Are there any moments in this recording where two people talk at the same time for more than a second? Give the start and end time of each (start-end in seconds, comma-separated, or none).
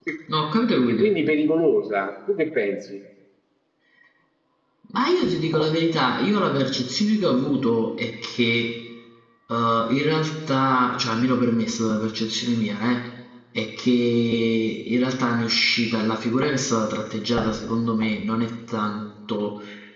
none